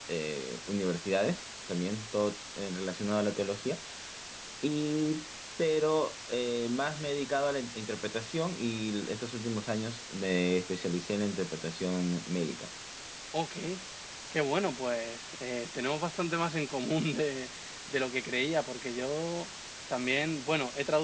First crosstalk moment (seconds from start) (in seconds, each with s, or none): none